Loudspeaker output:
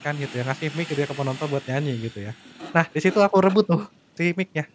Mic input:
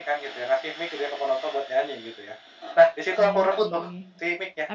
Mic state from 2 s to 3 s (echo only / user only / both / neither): echo only